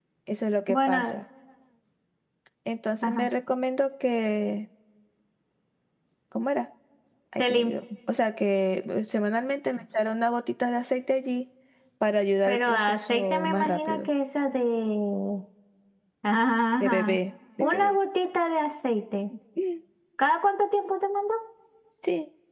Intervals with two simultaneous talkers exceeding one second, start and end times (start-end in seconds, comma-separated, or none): 12.5-14.1